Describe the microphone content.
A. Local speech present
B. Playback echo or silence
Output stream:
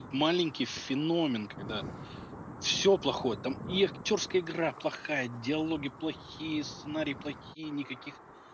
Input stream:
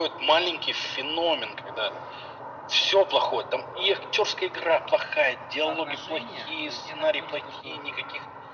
A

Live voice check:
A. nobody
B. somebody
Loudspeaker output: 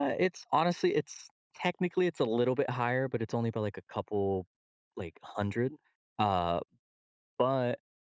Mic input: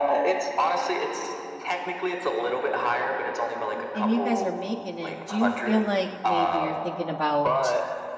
B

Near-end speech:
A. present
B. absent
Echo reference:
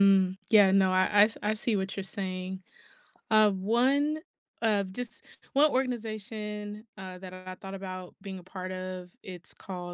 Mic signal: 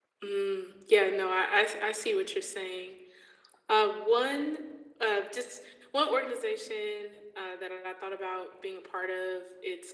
B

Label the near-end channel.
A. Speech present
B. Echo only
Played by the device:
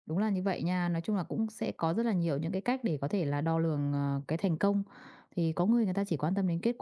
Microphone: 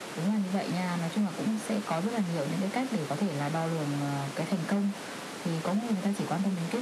B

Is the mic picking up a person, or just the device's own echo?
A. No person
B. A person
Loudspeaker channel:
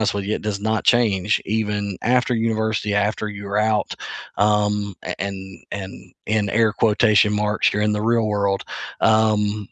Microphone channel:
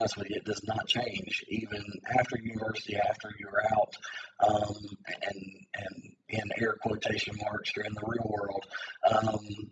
A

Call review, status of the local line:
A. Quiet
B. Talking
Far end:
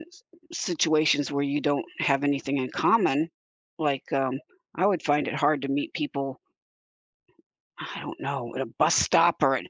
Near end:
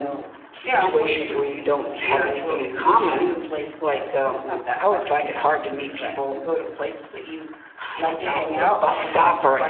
B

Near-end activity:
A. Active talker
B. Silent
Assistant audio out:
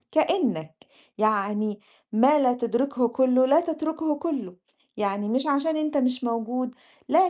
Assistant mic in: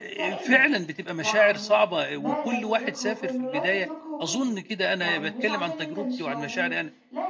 A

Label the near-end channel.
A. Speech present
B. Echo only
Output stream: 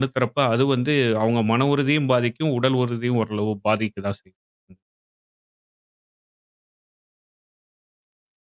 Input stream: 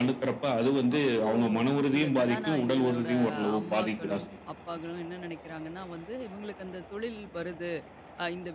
A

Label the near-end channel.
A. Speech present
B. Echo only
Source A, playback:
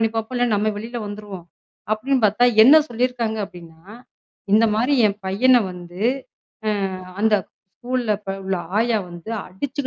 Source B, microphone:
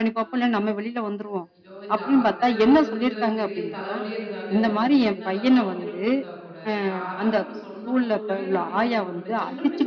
A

